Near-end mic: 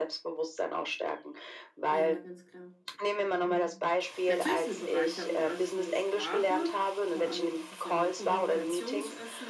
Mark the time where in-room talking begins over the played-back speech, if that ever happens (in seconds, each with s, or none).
1.9 s